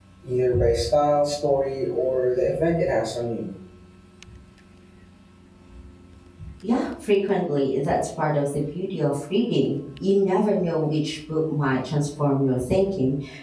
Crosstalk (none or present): none